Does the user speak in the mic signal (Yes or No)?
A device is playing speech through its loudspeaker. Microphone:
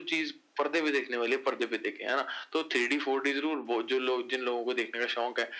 No